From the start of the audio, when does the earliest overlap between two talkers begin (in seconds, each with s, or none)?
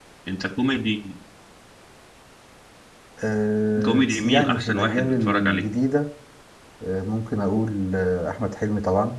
3.8 s